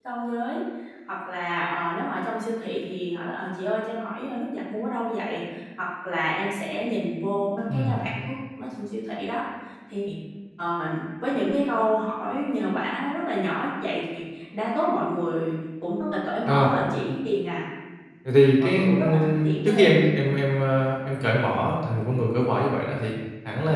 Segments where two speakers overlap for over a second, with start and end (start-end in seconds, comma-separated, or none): 18.6-20.0